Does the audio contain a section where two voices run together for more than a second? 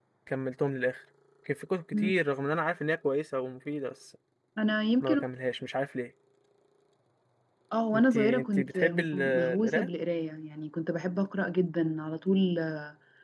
Yes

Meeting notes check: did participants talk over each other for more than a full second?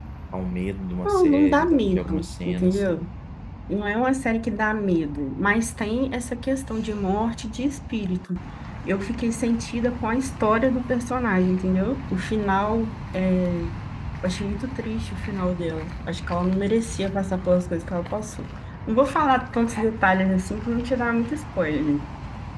Yes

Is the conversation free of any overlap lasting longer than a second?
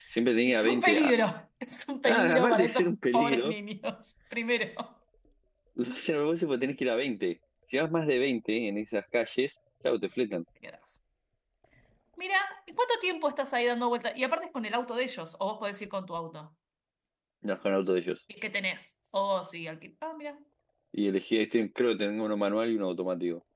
No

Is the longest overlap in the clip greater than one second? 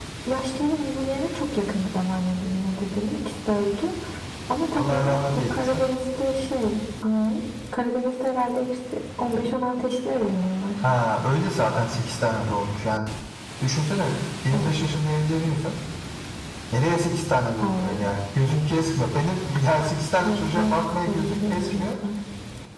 Yes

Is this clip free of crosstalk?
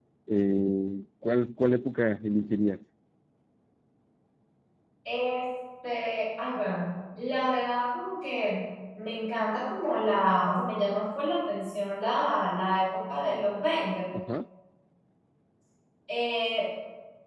Yes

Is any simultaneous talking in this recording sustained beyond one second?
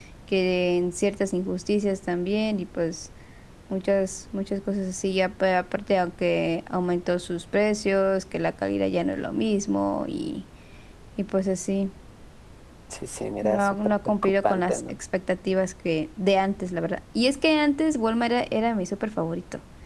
Yes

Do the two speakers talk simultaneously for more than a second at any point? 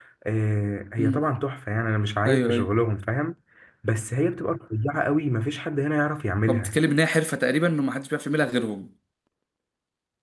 No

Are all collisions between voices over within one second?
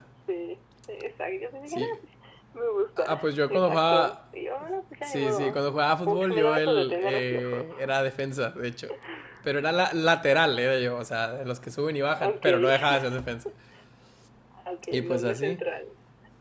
No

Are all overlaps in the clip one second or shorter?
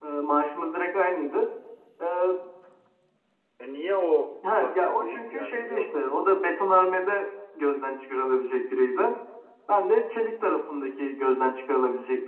No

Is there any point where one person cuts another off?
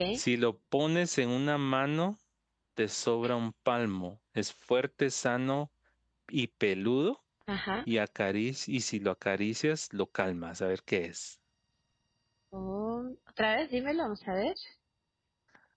No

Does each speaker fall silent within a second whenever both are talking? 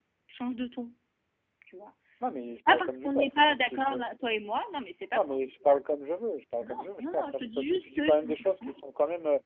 No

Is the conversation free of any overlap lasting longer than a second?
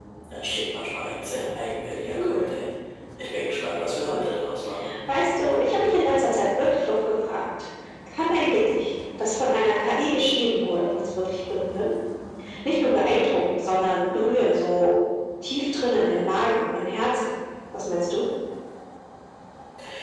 Yes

